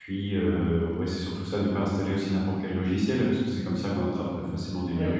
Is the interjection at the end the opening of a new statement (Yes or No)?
Yes